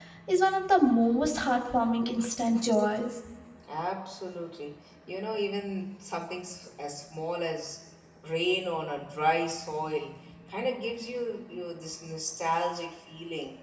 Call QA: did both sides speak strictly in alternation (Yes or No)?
Yes